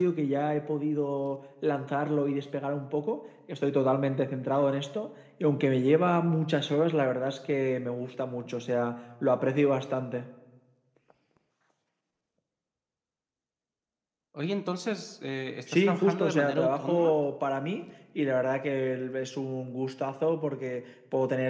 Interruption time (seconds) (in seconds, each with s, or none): 15.7 s